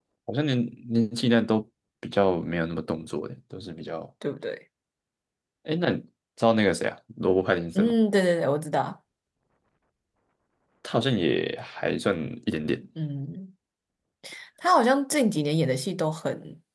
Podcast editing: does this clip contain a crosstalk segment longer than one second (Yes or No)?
No